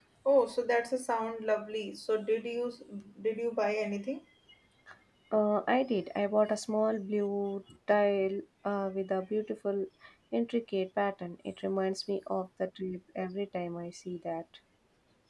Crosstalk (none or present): none